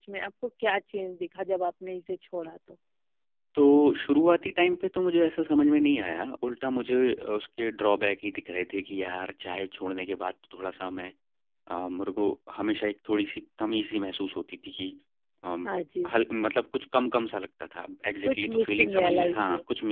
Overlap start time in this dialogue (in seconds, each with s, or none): 18.2 s